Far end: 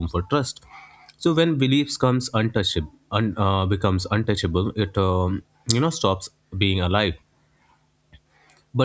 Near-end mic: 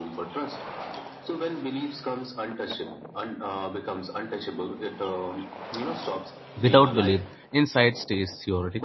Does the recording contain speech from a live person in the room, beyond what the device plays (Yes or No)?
Yes